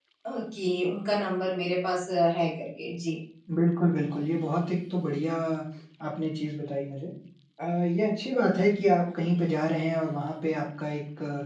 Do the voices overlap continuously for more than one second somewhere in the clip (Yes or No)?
No